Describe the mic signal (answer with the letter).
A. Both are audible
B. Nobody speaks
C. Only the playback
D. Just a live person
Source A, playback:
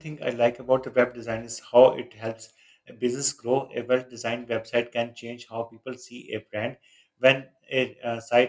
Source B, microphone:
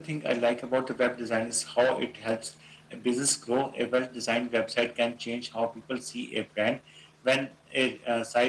C